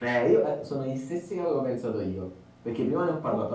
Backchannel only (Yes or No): Yes